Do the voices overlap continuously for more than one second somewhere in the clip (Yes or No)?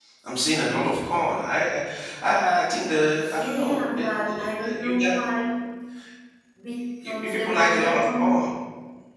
Yes